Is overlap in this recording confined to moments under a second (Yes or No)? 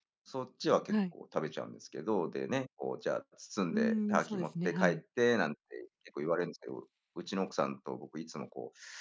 No